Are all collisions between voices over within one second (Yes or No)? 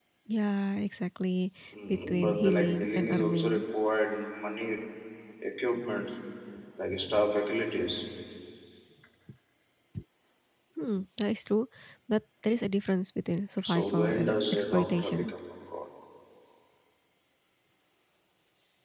No